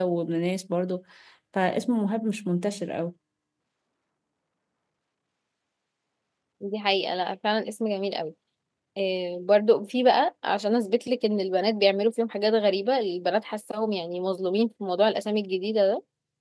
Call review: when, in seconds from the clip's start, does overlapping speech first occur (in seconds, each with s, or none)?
none